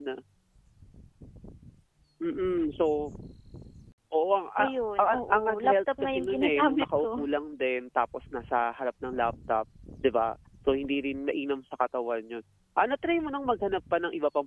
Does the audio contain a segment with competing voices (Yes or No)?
Yes